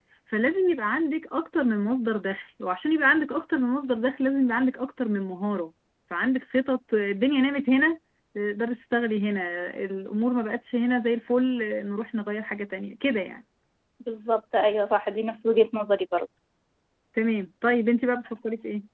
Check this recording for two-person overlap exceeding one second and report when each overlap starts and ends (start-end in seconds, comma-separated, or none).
none